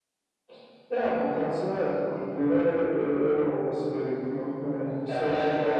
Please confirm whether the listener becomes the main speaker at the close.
Yes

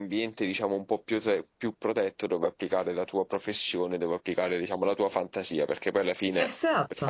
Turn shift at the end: No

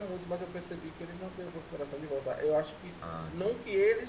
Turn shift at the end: No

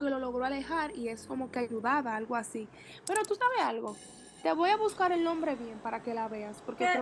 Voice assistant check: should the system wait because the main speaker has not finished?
No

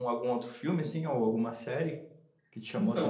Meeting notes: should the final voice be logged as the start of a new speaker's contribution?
Yes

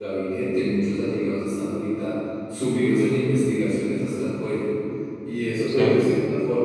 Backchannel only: Yes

